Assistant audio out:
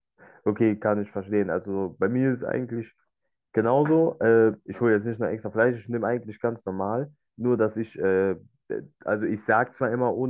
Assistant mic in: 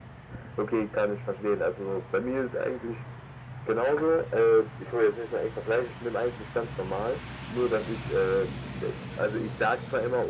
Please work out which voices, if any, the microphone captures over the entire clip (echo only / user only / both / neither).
echo only